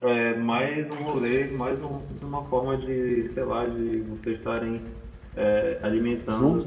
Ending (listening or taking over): listening